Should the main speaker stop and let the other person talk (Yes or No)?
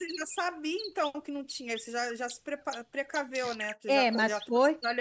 Yes